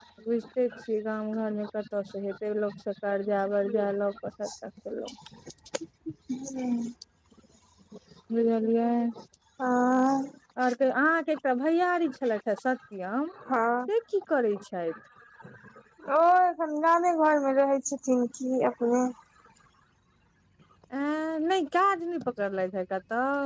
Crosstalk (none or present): none